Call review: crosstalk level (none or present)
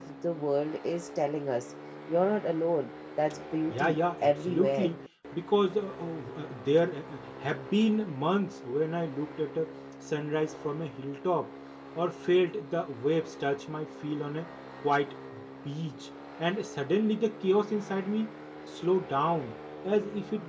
present